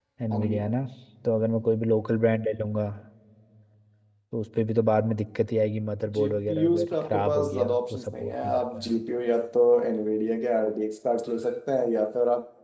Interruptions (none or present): present